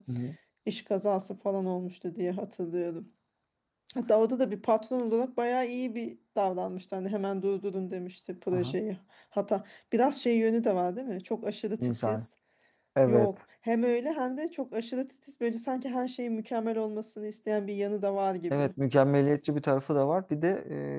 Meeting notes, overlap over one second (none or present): none